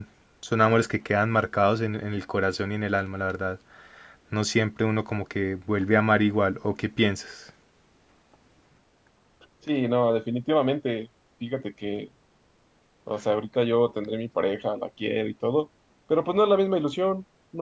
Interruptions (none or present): none